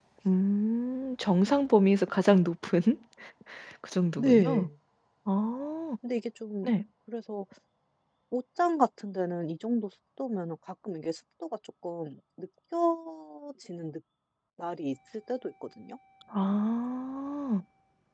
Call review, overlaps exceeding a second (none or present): none